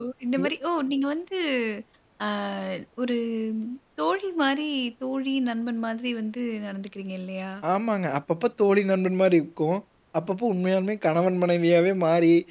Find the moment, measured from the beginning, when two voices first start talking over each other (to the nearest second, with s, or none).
none